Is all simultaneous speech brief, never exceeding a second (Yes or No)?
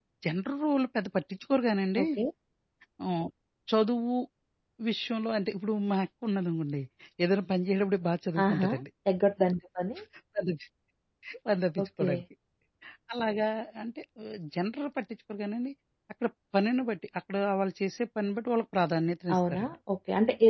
Yes